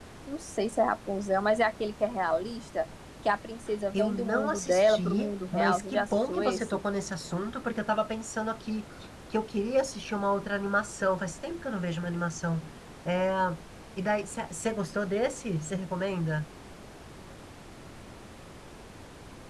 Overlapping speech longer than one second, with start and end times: 3.9-6.7

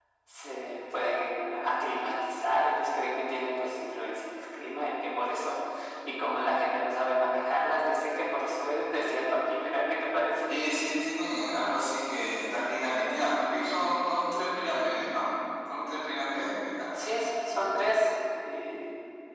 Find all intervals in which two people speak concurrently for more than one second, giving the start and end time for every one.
none

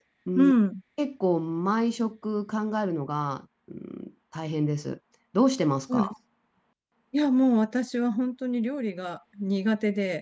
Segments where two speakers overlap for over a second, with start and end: none

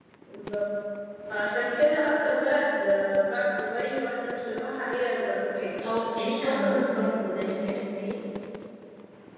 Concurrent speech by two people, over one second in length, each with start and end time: 6.3-7.5

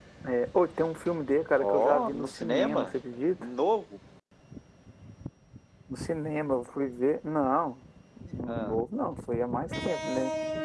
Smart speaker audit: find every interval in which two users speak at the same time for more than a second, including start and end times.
1.6-2.9

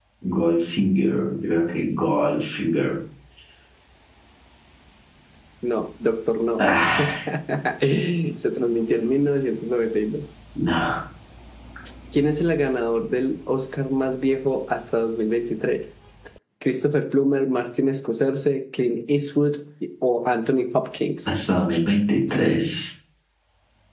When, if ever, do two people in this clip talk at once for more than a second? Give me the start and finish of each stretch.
none

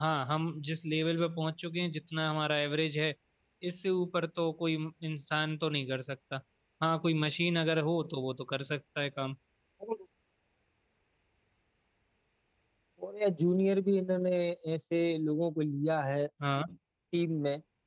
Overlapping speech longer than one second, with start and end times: none

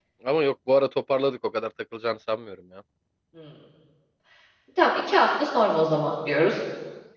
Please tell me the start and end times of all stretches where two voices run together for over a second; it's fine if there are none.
none

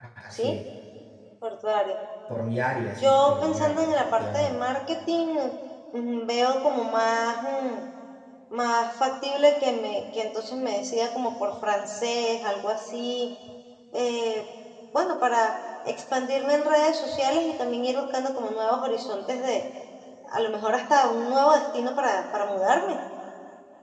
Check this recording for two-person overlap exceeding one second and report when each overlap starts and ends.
3.0-4.6

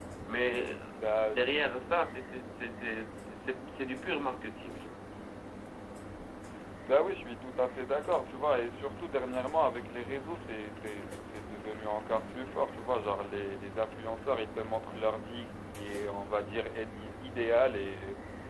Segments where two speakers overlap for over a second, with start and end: none

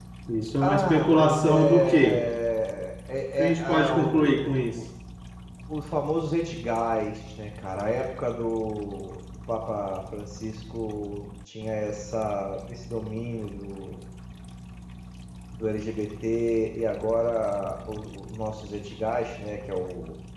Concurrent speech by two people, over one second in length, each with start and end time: 0.6-2.2, 3.4-4.8

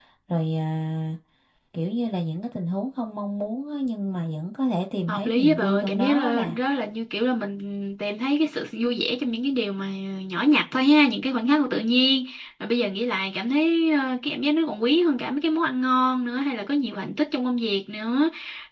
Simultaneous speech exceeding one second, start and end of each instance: 5.1-6.6

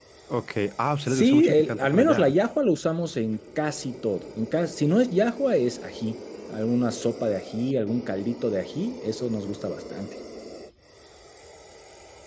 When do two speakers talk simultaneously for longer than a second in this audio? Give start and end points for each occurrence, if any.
1.1-2.3

